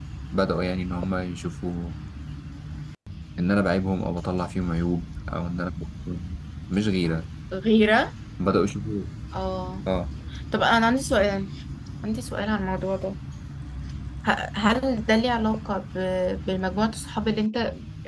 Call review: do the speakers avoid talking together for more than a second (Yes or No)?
Yes